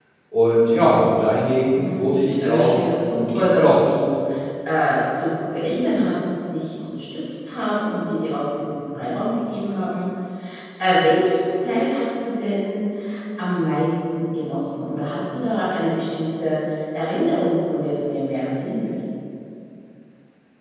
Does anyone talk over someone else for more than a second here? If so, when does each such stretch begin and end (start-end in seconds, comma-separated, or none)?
2.4-3.8